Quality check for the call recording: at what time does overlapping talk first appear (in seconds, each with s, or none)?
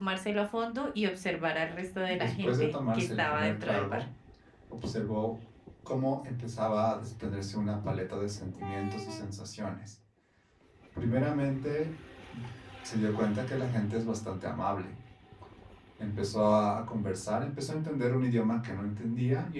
2.1 s